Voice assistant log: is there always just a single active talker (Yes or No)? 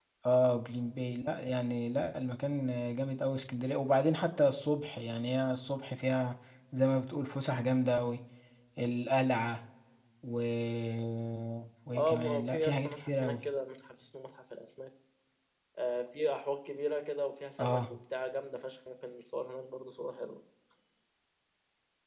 No